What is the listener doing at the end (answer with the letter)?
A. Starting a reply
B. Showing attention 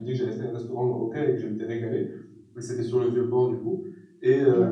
B